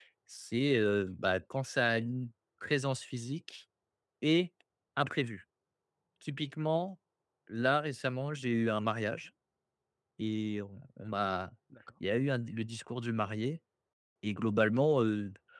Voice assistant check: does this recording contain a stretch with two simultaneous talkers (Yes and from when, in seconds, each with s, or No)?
No